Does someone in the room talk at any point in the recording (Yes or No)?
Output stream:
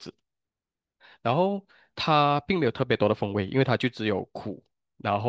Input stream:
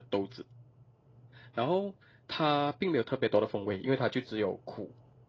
No